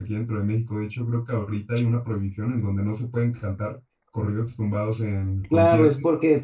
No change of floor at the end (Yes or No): No